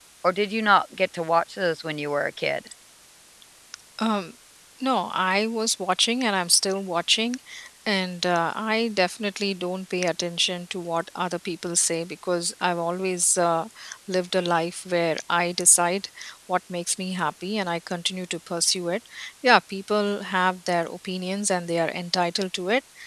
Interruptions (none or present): none